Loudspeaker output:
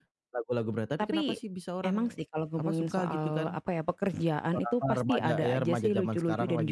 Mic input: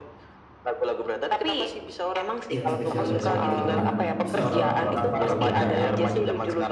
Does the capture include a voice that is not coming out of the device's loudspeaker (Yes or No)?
Yes